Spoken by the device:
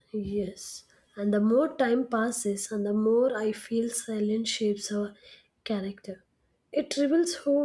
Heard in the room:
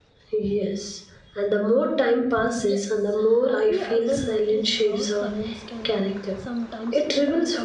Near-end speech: present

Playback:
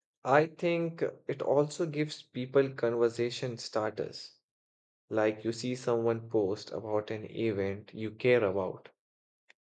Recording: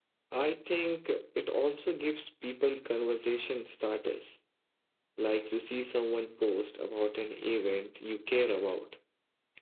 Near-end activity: none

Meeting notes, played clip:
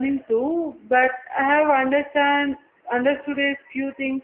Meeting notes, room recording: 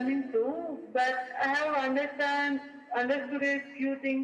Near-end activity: none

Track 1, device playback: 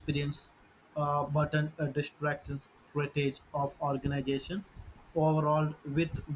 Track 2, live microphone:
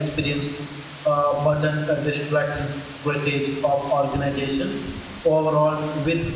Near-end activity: none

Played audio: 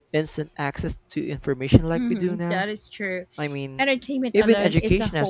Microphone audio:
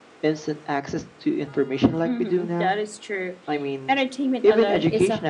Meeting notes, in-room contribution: none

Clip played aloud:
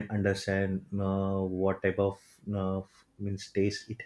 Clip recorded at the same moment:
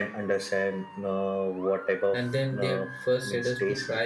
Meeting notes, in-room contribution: present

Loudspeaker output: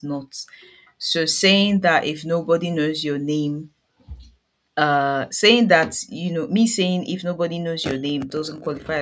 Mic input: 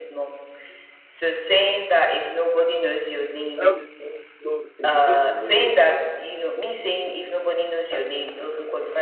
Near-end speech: present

